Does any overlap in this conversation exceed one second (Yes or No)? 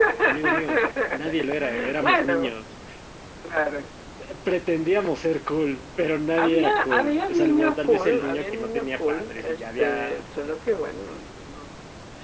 Yes